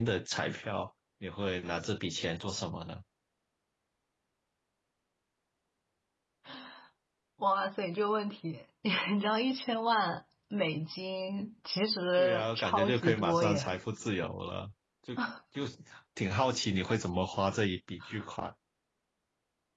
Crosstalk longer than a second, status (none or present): present